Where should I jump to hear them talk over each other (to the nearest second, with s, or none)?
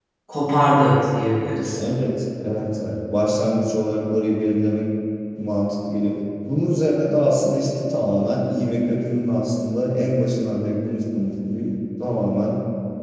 none